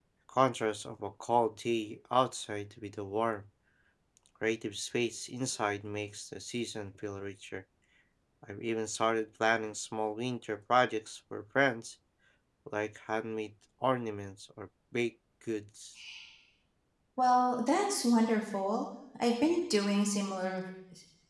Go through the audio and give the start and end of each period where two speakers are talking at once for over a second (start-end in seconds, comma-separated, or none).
none